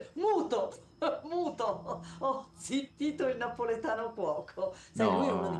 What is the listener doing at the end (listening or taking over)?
listening